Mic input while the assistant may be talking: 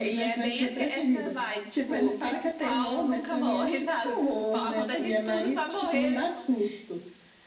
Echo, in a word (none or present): present